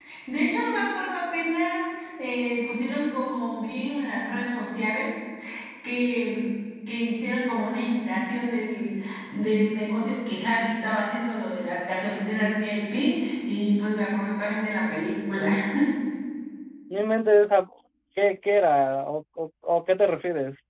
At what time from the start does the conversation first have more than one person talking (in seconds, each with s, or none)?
none